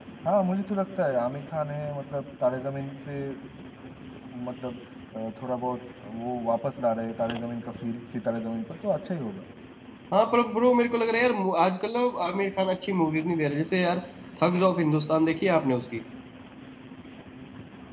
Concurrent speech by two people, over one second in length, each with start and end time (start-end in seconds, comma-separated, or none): none